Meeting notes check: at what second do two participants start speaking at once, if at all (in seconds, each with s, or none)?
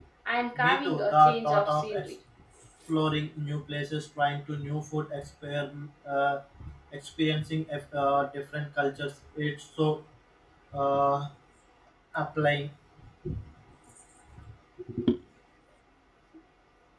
0.6 s